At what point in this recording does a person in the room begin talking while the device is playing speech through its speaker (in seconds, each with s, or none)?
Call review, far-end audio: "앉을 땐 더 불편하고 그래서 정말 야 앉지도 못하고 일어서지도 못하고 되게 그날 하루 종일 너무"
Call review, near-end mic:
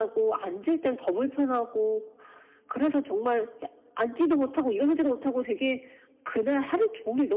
none